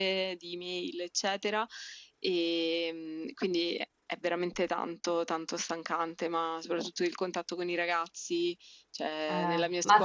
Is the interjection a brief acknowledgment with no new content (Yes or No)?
No